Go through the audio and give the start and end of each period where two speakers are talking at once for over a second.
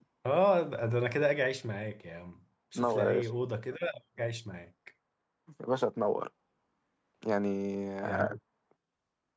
none

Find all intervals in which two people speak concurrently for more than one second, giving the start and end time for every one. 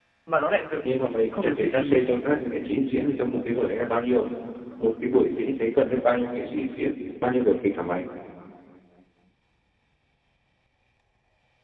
0.9-2.2

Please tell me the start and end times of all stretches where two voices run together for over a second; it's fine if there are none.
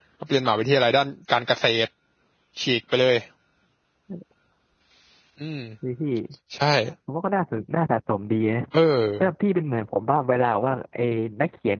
none

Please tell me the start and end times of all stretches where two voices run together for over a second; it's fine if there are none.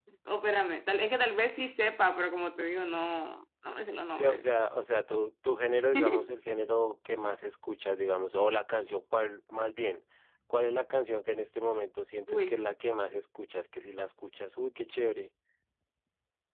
none

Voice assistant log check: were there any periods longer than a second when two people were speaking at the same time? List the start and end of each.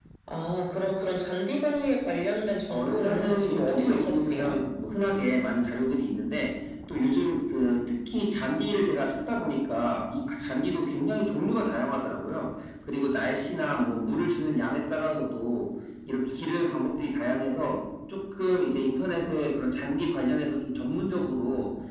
2.7-4.6

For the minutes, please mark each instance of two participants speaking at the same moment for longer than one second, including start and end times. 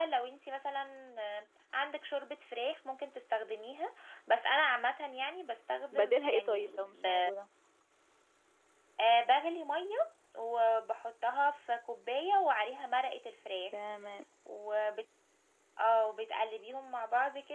5.9-7.3

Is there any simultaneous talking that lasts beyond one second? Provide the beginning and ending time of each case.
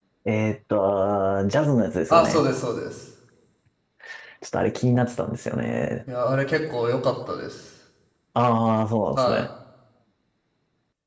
none

